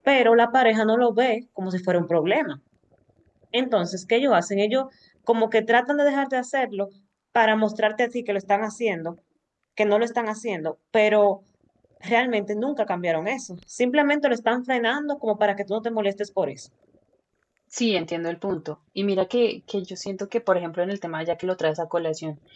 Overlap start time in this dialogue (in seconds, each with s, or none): none